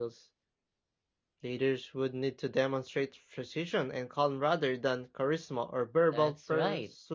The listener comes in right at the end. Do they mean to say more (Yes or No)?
Yes